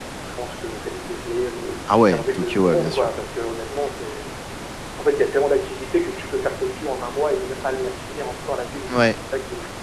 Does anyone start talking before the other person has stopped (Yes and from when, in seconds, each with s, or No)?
Yes, from 1.9 s